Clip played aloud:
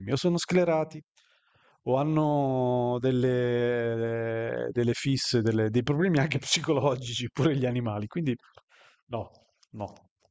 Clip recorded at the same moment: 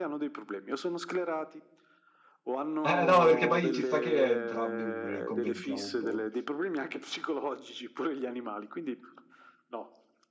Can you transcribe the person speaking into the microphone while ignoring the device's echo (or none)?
Eh, eh, no, perché poi ci sta che entrambi eh, commentiamo un po'.